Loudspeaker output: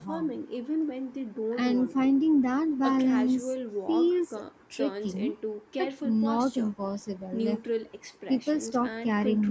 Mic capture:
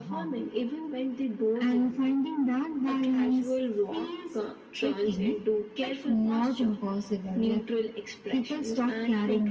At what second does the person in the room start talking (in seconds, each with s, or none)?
none